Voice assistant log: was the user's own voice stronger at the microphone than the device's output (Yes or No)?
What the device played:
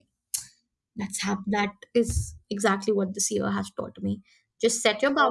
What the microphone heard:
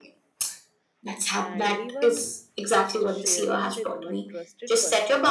No